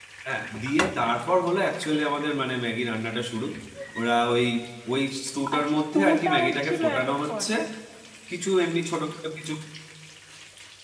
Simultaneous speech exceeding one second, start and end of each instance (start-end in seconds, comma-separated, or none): 5.6-7.4